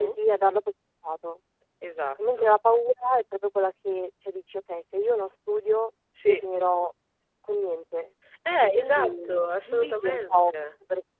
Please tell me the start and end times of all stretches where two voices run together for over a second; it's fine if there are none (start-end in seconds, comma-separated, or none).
8.6-10.5